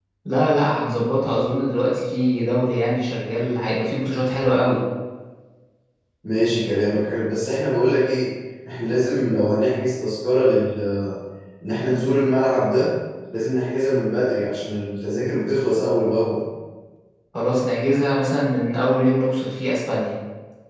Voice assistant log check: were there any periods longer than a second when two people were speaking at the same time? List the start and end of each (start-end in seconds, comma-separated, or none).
none